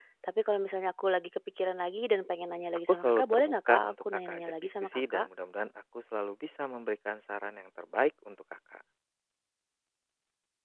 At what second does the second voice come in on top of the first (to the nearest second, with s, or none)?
3 s